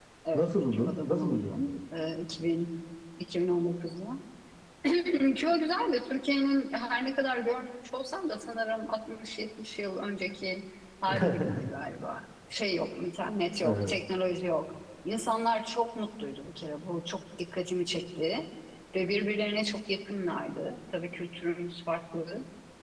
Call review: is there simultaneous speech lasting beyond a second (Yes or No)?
Yes